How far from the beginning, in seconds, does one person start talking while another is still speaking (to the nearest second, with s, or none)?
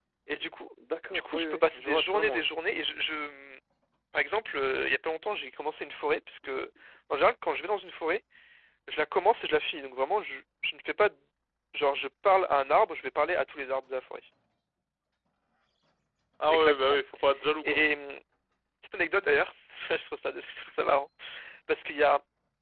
1 s